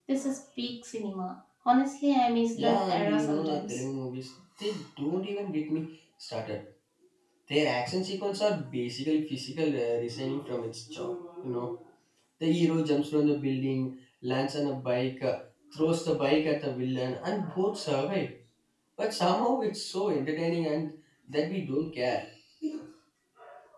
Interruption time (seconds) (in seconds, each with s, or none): 2.5 s